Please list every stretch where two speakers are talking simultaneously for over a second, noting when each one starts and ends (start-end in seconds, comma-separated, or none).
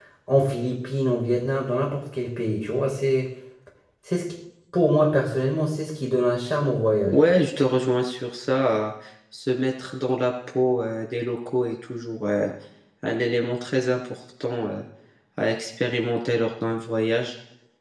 none